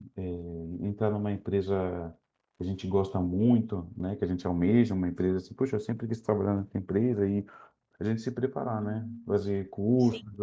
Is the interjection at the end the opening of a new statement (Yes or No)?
No